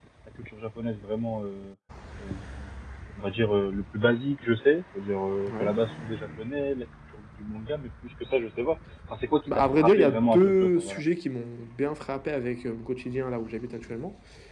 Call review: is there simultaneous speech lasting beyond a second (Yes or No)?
Yes